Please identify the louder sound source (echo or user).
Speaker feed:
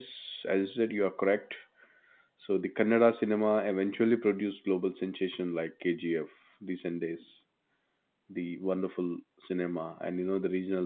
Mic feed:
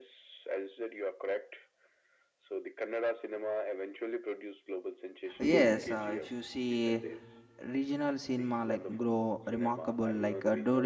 user